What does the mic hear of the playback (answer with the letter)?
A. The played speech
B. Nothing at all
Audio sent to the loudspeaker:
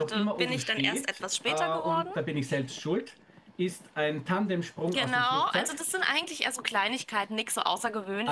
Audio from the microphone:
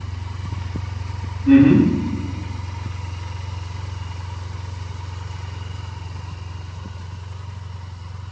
B